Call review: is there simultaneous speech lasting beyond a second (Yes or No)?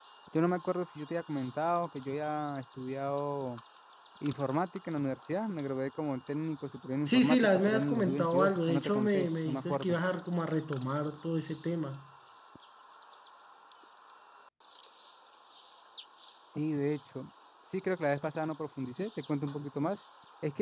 Yes